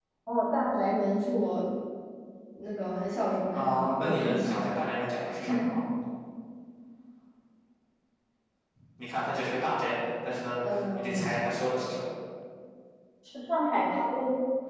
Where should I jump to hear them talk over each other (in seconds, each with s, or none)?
3.5 s